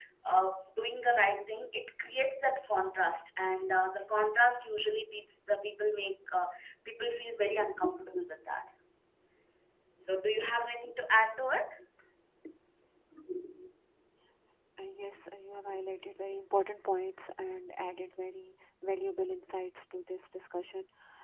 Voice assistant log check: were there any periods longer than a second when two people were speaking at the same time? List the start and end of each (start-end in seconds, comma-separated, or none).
none